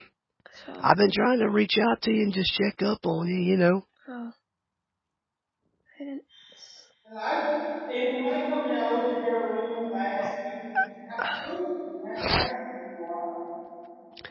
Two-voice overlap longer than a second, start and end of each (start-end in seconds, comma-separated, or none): none